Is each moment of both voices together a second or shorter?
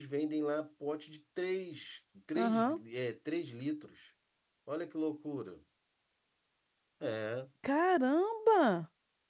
Yes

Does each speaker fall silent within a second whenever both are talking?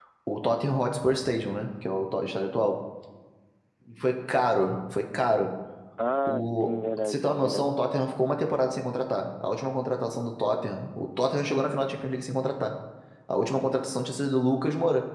No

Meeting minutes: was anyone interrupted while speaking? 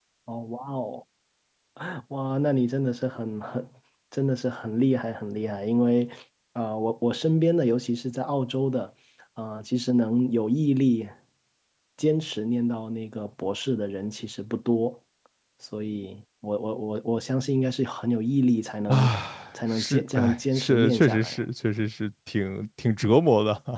Yes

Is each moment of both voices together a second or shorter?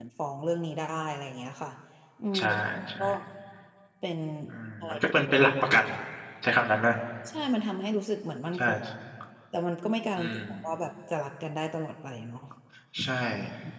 Yes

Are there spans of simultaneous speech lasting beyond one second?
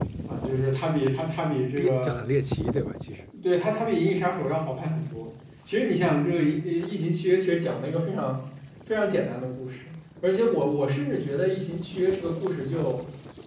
No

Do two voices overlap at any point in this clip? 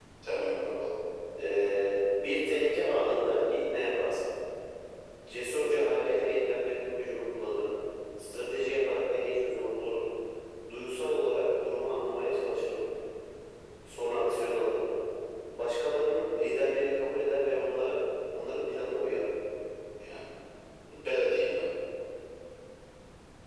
No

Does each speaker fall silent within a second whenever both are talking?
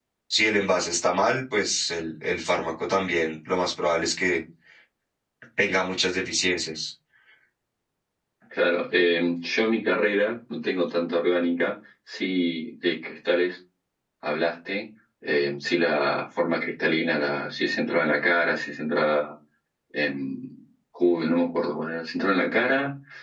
Yes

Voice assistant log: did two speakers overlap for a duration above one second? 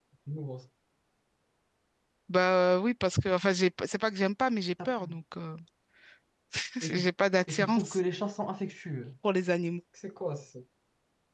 No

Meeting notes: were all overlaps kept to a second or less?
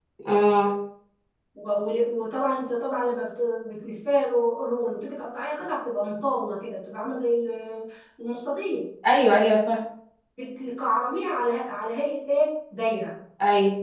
Yes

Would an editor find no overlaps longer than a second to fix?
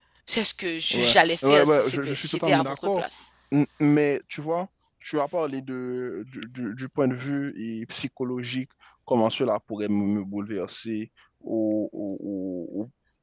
No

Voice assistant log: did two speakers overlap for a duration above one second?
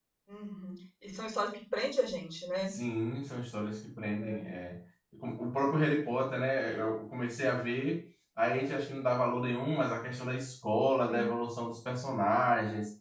No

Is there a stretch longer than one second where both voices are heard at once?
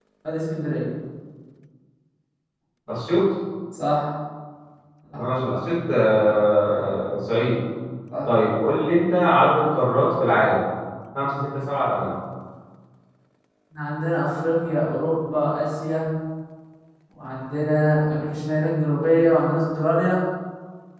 No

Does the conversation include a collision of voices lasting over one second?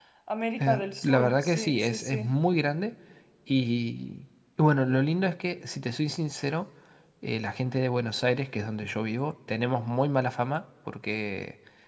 Yes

